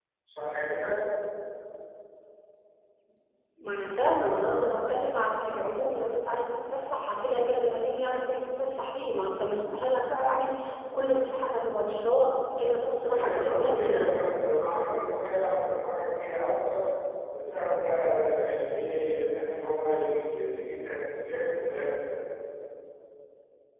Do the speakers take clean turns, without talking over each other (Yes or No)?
No